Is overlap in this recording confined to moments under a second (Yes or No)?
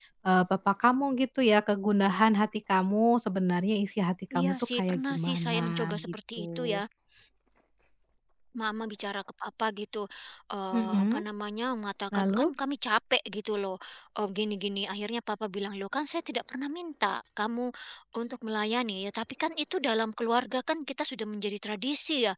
No